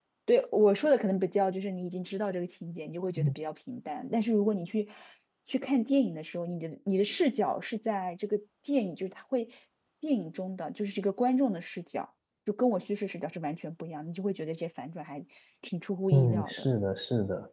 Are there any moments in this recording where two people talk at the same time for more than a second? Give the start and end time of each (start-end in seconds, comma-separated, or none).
none